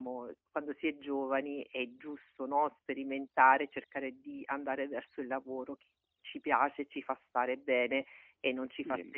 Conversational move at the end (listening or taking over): taking over